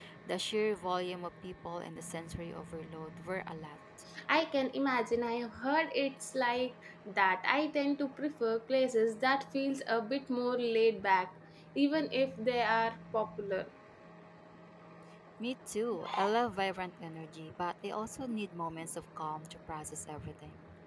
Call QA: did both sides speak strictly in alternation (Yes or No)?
Yes